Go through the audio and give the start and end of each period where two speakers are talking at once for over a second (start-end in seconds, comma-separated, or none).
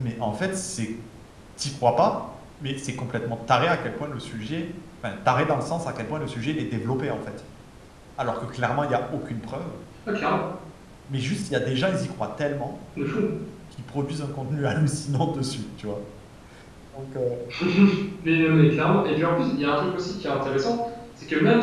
none